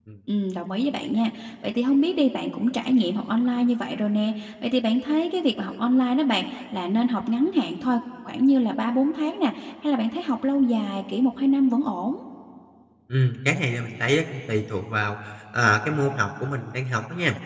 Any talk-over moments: No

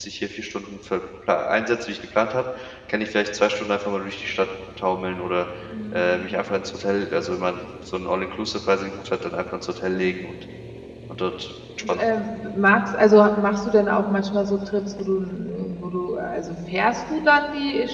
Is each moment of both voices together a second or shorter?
Yes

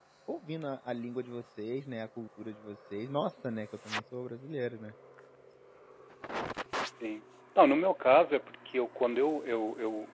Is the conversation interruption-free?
Yes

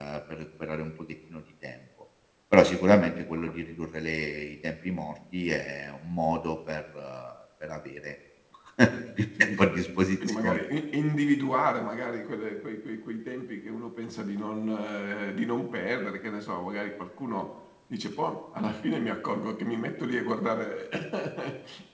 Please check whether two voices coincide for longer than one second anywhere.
No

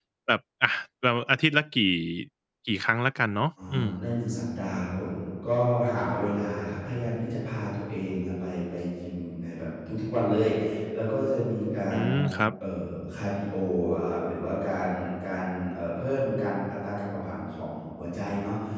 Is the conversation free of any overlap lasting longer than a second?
Yes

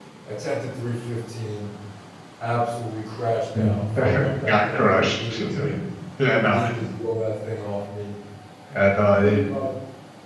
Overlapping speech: Yes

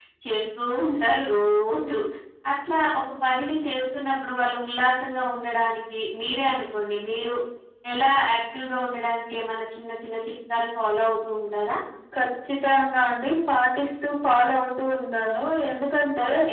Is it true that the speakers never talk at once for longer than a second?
Yes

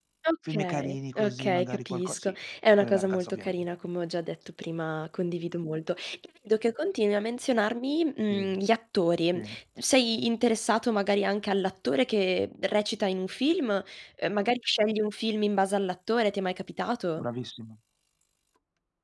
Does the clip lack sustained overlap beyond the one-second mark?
No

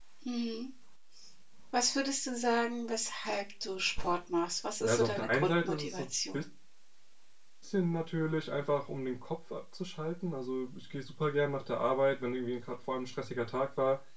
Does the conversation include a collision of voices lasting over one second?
Yes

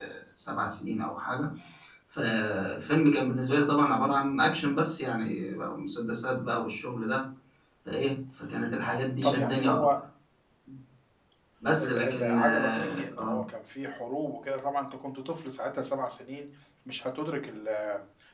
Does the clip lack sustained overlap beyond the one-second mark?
No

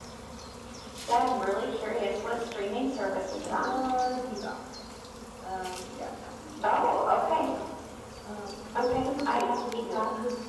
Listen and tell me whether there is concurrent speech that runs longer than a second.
Yes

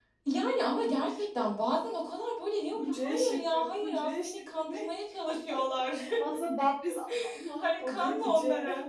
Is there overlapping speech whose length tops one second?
Yes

